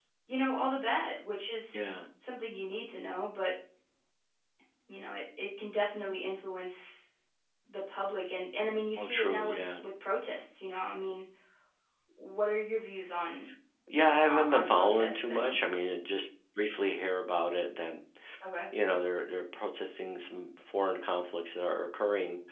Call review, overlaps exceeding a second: present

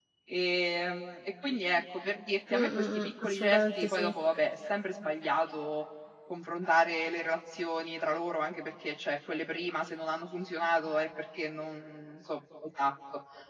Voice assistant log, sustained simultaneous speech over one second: present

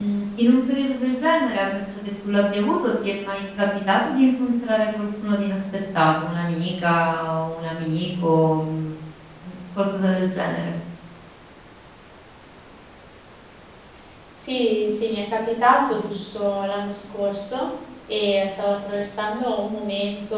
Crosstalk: none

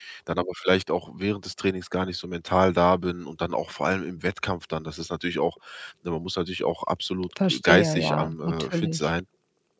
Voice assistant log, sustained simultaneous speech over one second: present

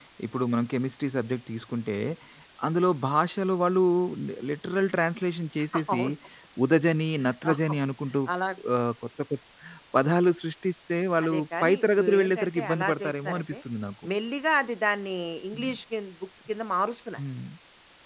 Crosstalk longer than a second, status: present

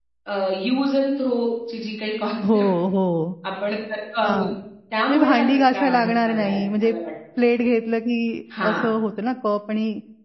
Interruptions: present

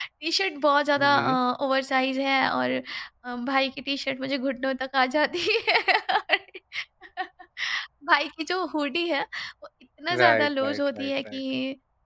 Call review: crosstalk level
present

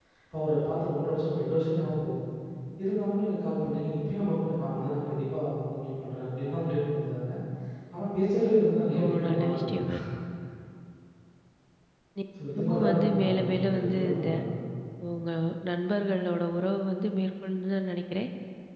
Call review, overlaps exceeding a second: present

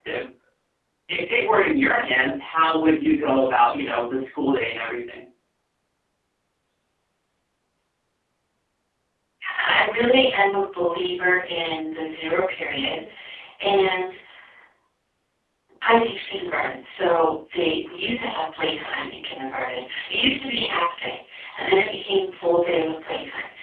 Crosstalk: none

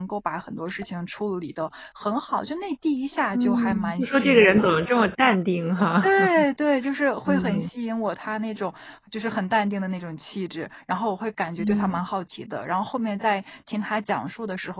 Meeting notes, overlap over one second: present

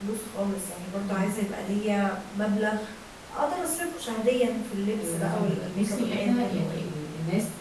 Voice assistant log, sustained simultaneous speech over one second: present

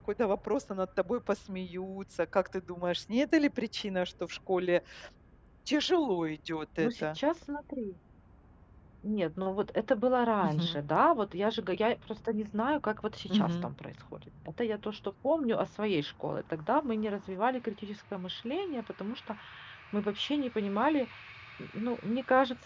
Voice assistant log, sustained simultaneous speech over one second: none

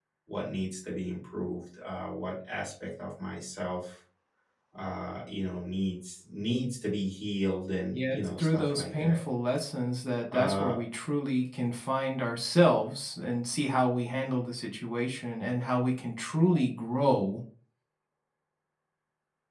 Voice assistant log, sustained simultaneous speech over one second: present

